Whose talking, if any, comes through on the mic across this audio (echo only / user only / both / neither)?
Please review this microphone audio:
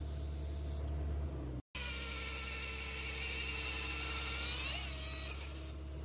neither